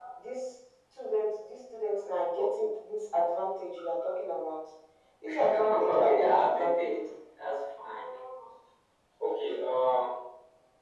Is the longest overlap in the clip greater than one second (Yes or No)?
Yes